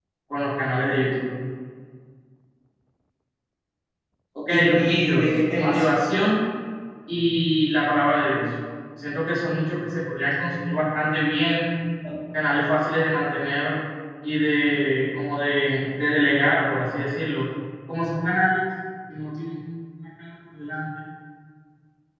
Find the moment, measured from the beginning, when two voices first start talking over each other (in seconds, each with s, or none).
4.5 s